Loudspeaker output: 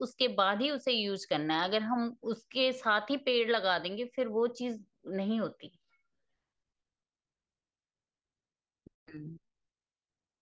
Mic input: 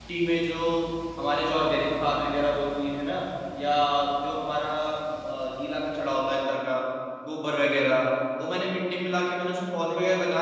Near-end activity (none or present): present